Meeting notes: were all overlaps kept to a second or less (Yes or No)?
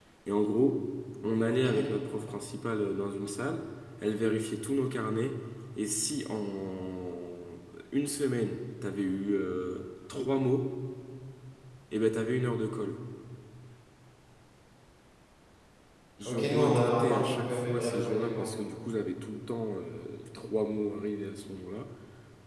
No